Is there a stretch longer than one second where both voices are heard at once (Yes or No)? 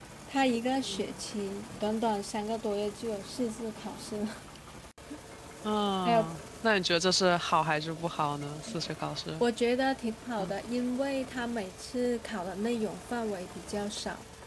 No